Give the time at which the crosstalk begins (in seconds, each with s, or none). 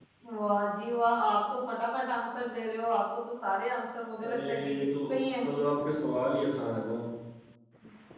4.2 s